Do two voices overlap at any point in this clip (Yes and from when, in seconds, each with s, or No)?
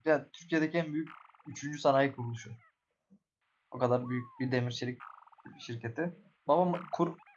No